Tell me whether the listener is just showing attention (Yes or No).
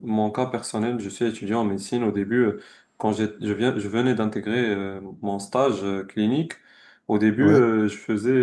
Yes